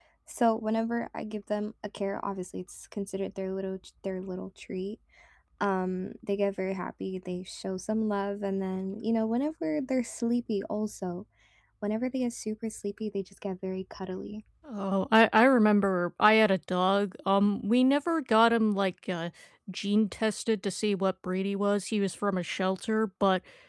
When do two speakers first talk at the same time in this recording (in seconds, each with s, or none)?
none